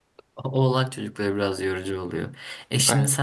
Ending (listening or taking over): listening